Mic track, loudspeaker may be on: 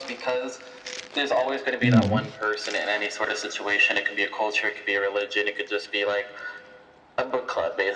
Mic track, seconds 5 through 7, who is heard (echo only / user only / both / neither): echo only